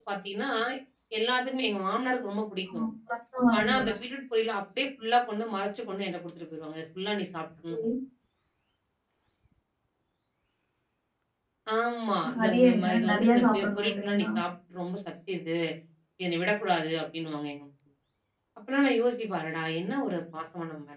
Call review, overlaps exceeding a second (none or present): present